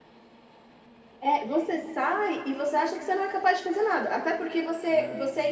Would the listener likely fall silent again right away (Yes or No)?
Yes